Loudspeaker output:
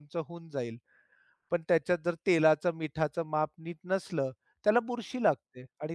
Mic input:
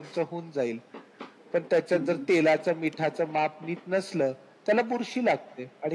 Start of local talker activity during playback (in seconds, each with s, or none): 1.9 s